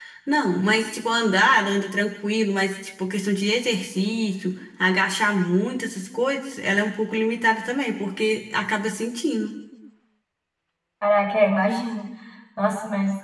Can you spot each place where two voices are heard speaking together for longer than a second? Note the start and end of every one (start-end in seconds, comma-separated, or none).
none